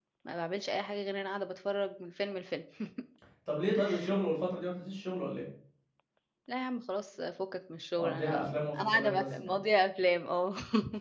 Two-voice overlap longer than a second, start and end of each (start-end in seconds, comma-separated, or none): 8.0-9.6